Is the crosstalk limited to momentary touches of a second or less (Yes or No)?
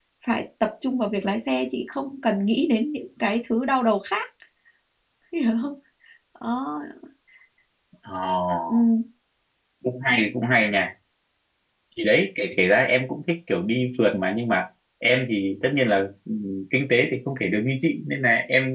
Yes